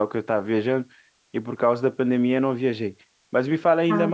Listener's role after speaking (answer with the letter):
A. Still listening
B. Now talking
A